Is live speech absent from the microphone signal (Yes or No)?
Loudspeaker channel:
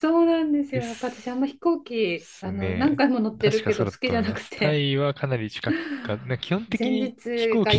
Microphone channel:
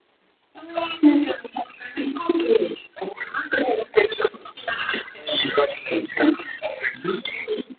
Yes